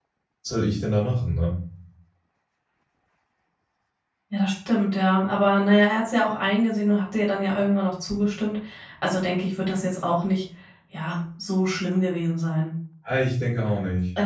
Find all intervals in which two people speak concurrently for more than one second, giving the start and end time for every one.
none

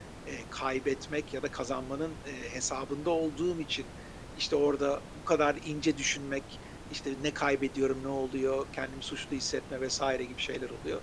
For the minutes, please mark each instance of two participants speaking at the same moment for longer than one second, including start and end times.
none

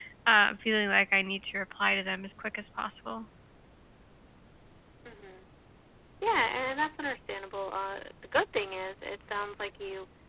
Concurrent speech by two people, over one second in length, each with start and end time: none

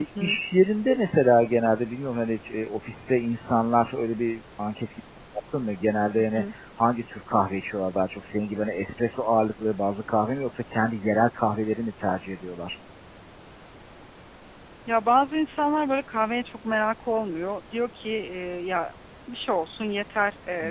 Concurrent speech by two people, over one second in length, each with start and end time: none

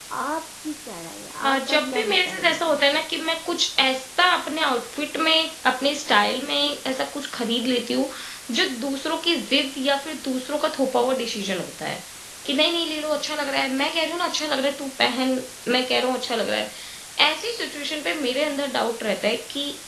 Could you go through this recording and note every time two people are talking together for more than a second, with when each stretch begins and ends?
1.4-3.0

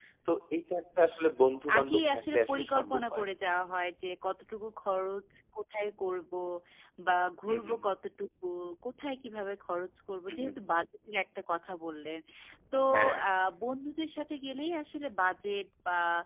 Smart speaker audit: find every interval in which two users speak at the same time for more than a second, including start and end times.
1.8-3.2

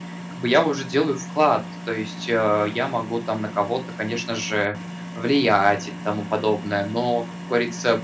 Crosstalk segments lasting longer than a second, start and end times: none

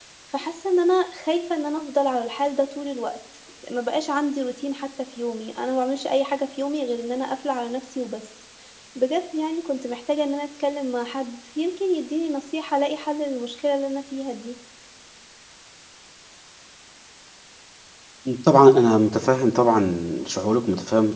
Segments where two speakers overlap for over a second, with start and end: none

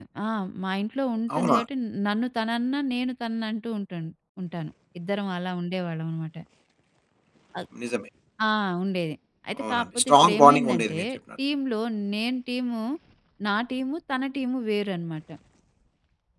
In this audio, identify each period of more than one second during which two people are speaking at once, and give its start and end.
9.7-11.0

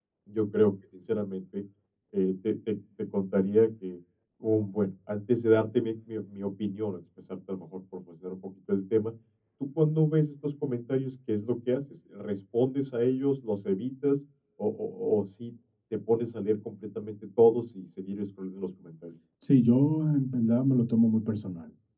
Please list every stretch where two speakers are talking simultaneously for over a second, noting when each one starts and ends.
none

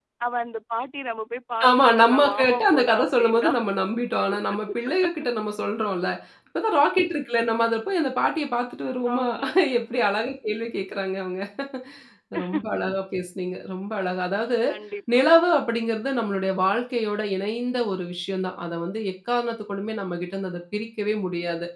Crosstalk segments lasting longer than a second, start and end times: 1.7-3.5

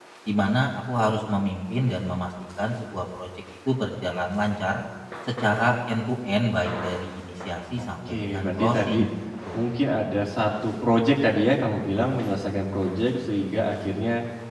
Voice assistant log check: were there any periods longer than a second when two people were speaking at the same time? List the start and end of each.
7.8-9.0

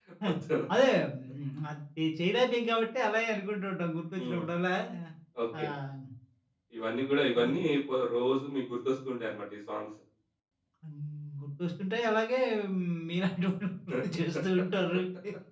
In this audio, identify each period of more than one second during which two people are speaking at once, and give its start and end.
none

